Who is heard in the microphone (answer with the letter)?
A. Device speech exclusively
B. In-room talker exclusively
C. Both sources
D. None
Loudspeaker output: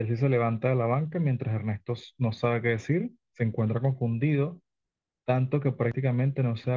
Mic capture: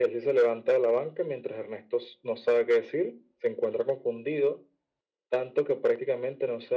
A